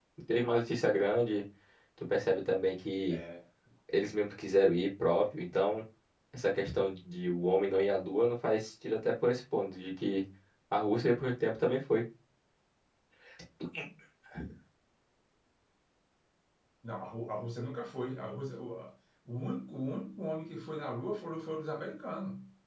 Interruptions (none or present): none